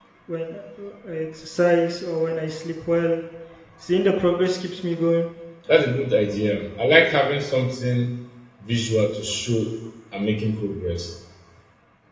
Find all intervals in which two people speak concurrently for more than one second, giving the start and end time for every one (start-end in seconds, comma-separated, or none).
none